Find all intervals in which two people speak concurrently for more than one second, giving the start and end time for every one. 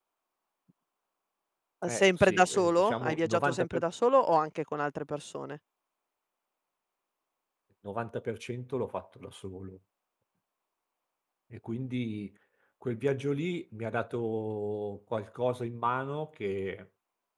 1.9-3.8

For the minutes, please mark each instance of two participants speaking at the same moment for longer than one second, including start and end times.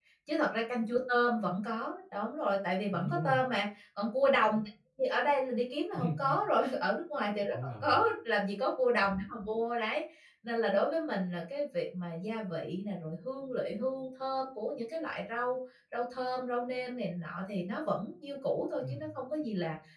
none

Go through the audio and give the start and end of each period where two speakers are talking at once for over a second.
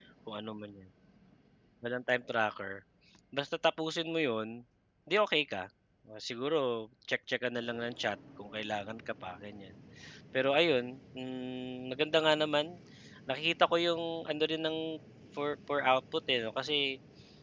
none

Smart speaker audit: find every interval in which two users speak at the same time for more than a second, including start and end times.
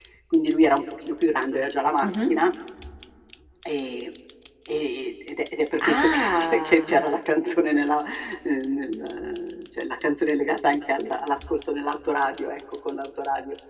5.8-7.1

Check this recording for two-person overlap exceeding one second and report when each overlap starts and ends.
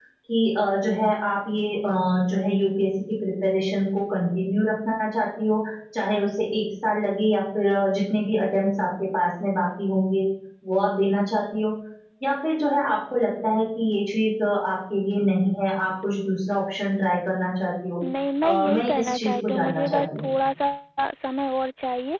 18.4-20.3

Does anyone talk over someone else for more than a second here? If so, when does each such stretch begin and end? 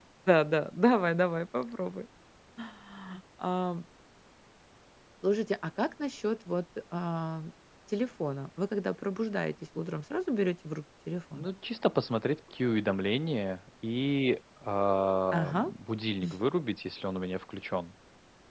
none

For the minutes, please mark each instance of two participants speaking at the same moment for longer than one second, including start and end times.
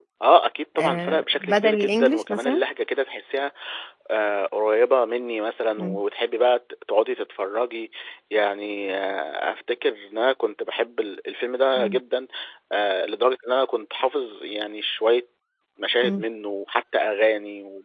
0.8-2.6

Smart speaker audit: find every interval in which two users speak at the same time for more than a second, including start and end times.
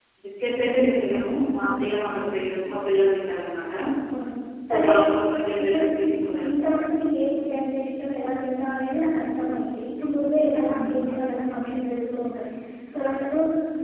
none

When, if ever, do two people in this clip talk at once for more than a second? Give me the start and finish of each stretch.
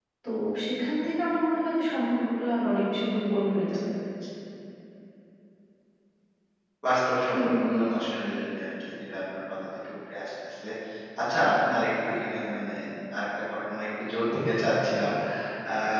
none

